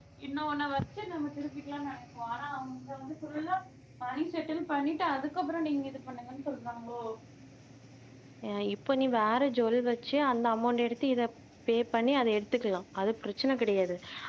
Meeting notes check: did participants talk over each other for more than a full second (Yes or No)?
No